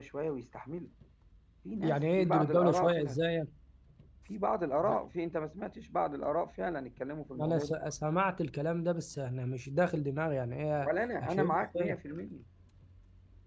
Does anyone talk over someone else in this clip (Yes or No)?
Yes